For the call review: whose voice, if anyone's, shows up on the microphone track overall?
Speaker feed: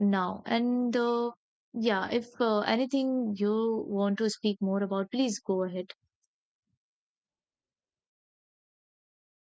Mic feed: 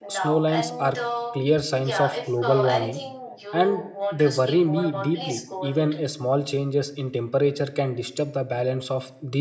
both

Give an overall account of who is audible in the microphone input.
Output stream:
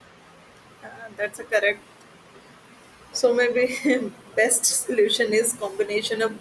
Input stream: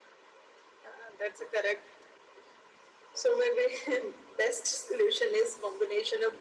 echo only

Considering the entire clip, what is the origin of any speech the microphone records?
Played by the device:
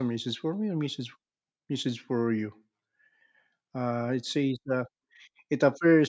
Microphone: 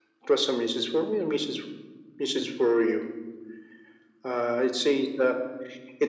echo only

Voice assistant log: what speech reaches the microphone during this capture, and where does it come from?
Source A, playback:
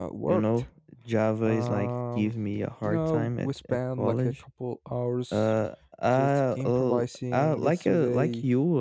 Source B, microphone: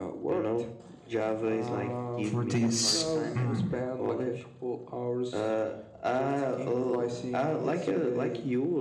both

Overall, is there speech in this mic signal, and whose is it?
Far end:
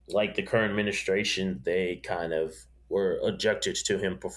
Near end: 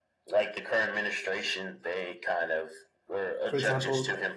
both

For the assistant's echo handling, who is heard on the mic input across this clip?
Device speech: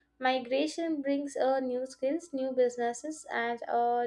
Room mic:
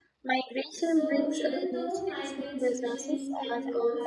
both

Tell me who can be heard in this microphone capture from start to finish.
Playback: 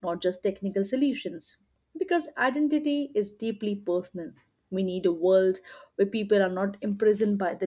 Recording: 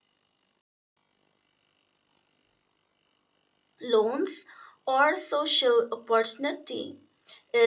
user only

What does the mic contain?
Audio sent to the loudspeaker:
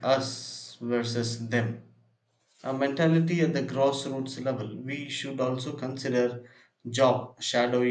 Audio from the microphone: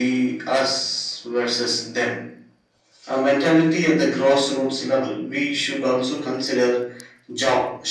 echo only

